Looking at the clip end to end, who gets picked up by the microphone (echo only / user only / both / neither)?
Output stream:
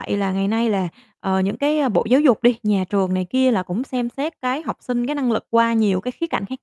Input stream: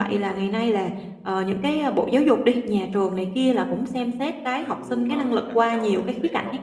both